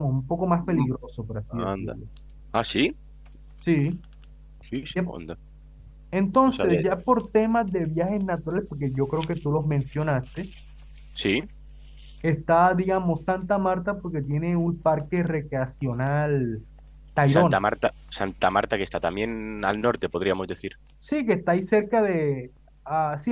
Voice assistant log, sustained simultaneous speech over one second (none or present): none